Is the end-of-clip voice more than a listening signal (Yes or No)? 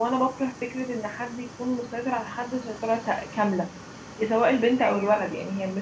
No